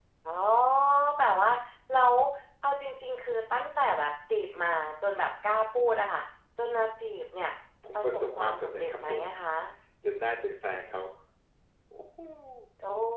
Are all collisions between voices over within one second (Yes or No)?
No